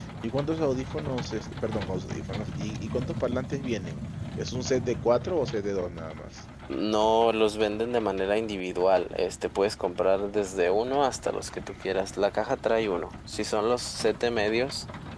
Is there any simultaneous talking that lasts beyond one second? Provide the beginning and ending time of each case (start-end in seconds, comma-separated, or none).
none